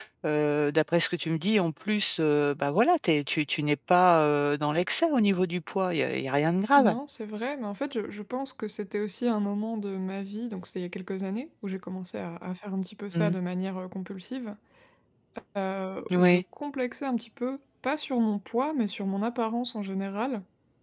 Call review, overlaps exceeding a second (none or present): none